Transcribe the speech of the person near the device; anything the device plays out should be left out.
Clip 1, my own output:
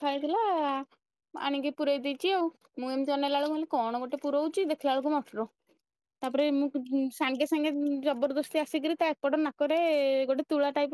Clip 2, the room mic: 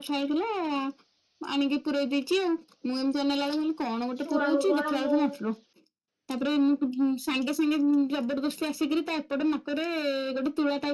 ଛୁଆଙ୍କୁ କଣ ମୁଁ

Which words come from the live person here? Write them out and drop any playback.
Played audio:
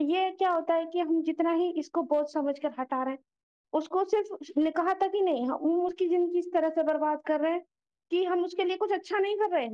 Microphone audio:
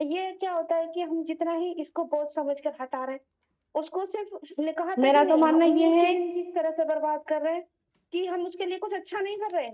میرا تو ماننا یہ ہے

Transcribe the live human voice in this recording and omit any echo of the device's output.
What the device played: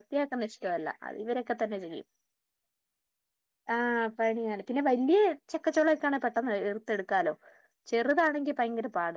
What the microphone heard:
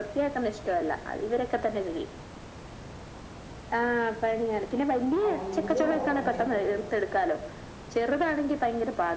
അടിയില് ഓറഞ്ചും.

